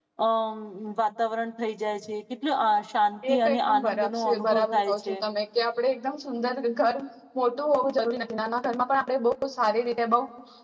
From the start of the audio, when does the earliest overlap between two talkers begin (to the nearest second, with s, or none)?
3 s